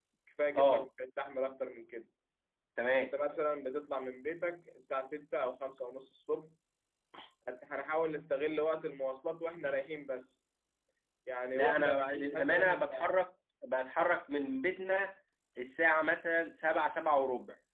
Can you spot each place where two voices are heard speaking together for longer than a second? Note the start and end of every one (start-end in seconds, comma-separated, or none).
11.5-12.9